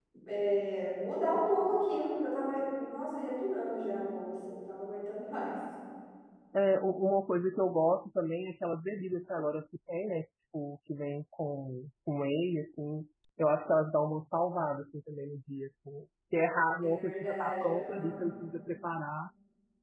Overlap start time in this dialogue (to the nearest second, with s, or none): 17 s